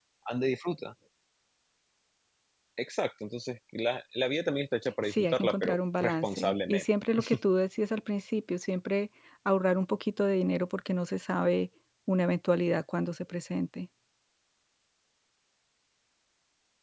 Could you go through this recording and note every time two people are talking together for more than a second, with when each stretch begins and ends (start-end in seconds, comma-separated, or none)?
5.1-6.8